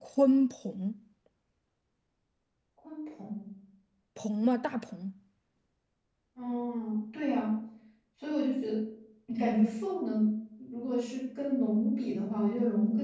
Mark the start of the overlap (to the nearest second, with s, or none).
none